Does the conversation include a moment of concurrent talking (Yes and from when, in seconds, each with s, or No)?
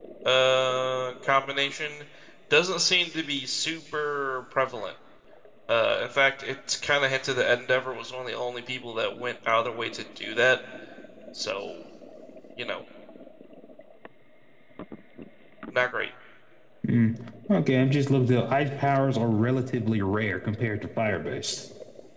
No